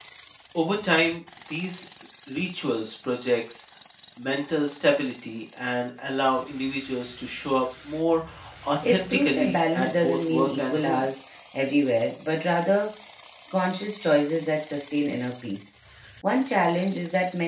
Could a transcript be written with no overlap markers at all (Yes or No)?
No